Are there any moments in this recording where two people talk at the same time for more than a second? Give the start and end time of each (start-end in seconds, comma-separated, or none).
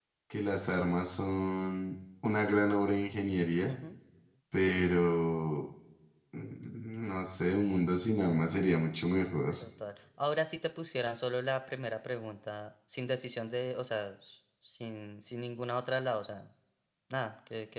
none